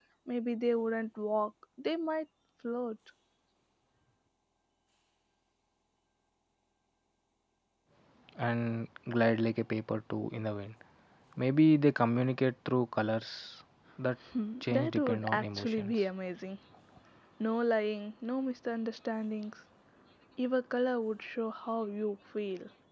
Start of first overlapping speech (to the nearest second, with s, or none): 15 s